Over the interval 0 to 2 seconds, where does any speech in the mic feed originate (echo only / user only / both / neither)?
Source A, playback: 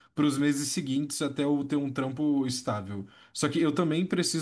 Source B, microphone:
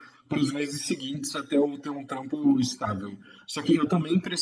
echo only